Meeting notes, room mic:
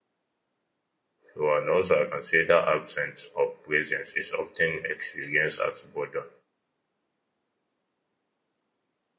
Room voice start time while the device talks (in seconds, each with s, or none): 1.3 s